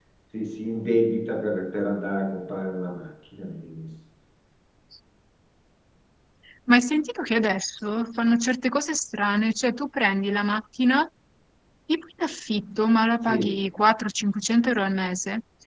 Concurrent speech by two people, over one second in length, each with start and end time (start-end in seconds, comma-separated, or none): none